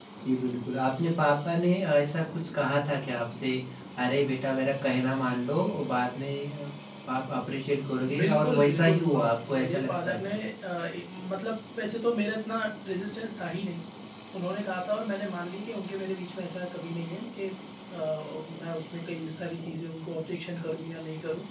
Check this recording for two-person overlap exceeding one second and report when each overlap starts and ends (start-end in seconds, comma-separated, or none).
8.2-10.4